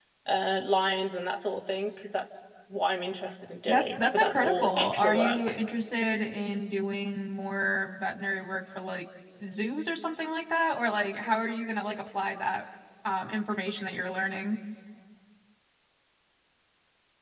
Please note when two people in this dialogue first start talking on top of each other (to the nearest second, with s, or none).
4 s